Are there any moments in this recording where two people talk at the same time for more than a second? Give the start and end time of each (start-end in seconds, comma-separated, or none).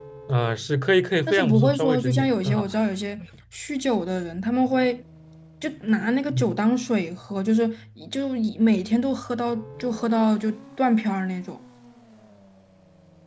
1.3-2.7